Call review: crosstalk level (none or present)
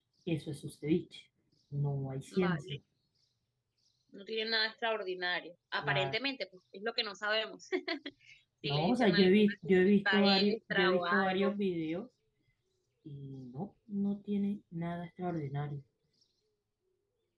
present